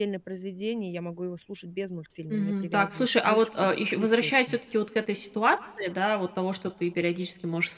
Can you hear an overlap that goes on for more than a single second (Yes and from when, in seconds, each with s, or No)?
Yes, from 2.3 s